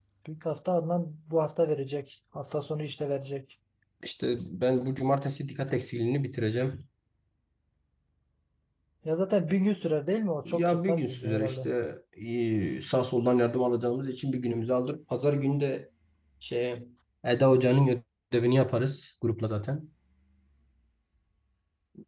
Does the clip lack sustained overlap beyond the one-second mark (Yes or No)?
No